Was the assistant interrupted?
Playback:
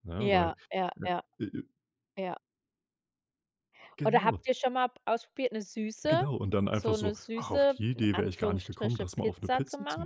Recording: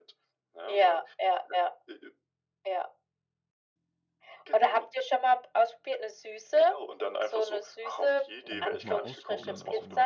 Yes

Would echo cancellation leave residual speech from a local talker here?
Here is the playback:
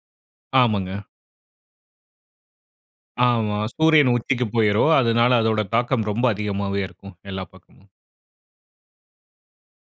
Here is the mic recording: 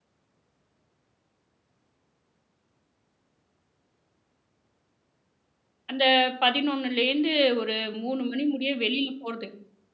Yes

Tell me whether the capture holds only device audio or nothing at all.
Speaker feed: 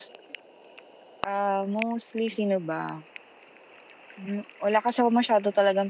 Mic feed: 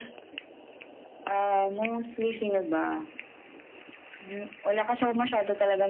Yes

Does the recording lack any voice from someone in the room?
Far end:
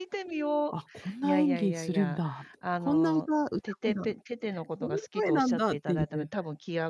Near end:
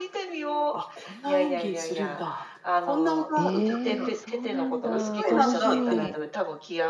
No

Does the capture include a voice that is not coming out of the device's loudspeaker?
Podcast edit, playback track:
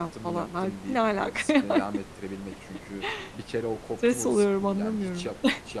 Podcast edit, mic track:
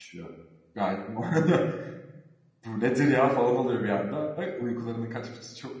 Yes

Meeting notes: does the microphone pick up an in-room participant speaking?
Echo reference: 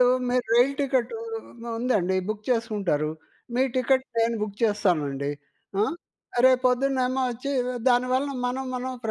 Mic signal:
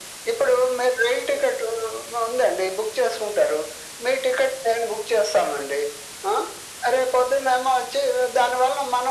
No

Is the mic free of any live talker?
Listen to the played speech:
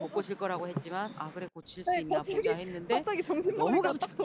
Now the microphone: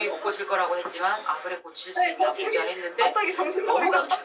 Yes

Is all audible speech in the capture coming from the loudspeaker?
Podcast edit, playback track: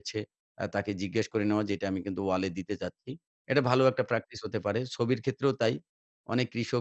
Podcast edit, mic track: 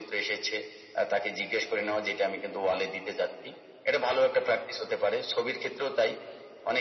Yes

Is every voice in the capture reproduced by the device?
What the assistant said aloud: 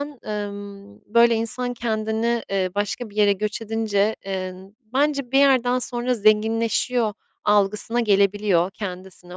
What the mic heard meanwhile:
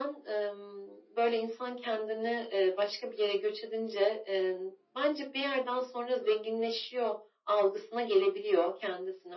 Yes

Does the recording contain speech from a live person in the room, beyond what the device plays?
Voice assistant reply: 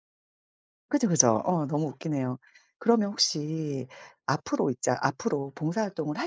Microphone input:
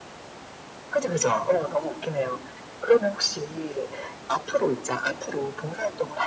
No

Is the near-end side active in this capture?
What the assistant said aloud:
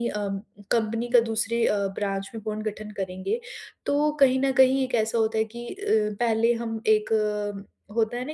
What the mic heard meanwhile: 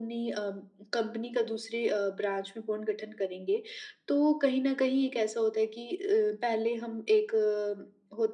No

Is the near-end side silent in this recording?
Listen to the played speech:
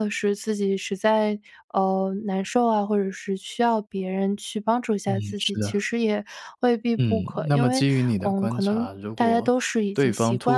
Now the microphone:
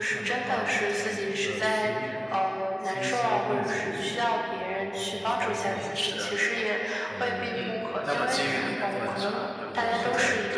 No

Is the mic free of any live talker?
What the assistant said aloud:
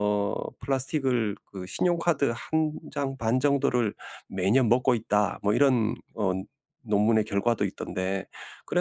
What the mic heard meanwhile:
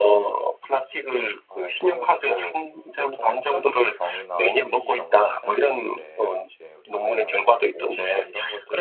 No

